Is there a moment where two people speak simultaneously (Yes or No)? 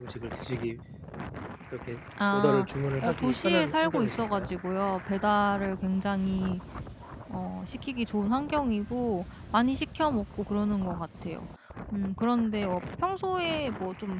Yes